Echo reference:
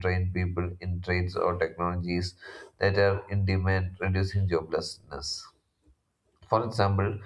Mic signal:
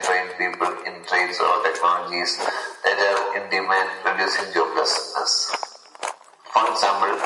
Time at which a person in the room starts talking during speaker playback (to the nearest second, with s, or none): none